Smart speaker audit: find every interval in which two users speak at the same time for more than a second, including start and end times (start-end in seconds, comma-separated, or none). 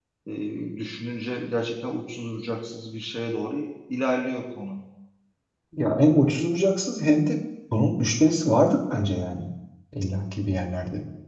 none